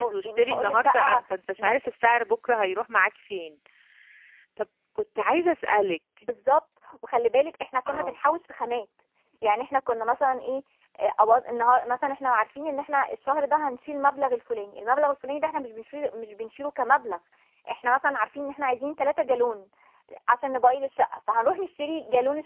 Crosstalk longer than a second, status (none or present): present